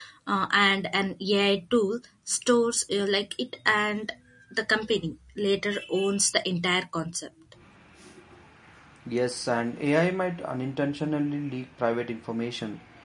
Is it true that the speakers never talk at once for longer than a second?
Yes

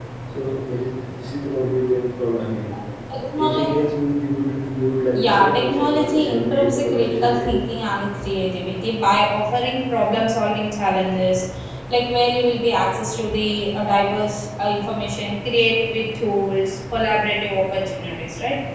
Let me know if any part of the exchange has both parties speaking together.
Yes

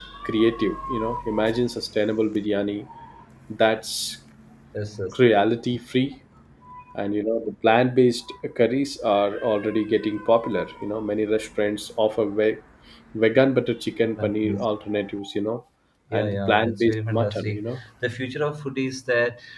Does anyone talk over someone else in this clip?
Yes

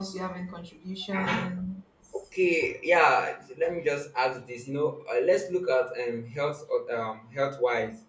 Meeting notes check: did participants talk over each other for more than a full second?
No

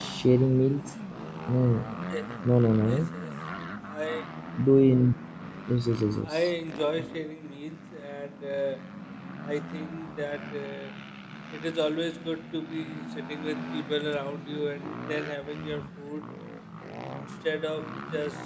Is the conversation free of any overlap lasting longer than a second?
Yes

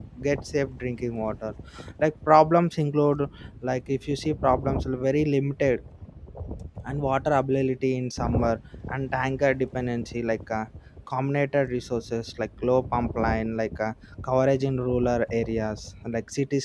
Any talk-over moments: No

